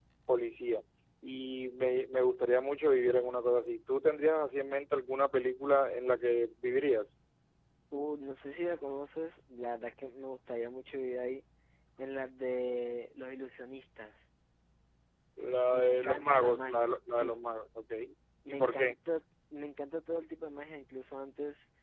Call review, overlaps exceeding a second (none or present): present